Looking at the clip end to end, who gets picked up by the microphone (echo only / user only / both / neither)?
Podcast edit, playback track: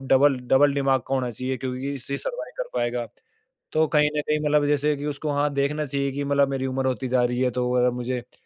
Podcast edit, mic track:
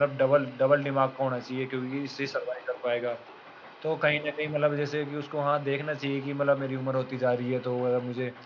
echo only